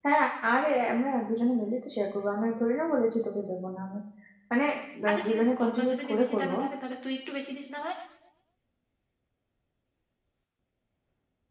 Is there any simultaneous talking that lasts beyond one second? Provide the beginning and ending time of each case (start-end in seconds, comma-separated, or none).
5.1-6.5